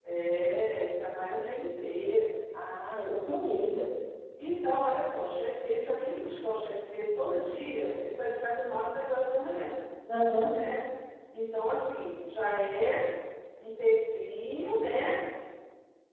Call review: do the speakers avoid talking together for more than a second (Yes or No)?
Yes